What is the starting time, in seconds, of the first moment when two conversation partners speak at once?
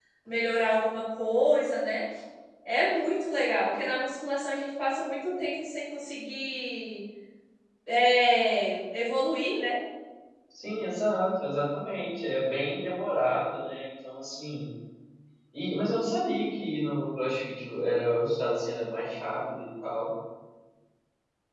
none

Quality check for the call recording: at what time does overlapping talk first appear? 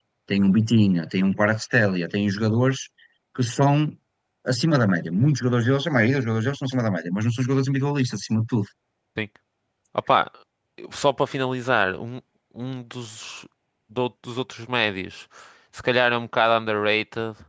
none

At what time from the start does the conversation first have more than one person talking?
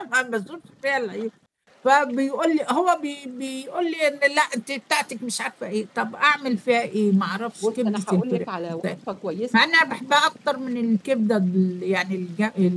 7.6 s

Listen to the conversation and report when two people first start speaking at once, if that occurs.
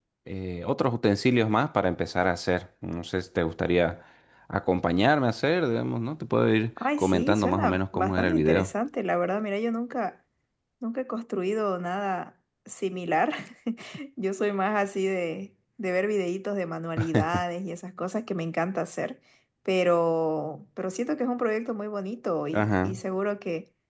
7.0 s

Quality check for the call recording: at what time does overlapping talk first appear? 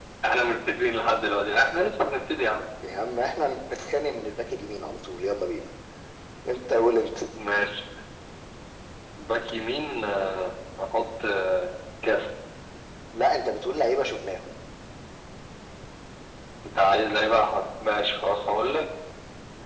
none

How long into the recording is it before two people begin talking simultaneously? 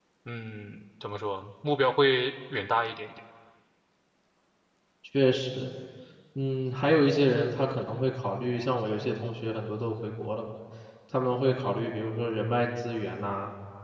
none

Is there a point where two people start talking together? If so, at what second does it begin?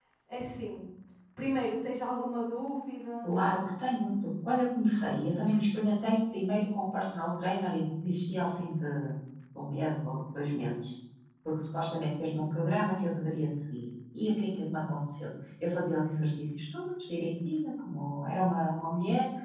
none

